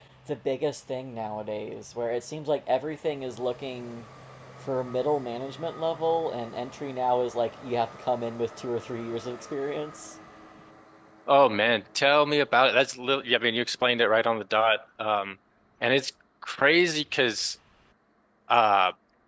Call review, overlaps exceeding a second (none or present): none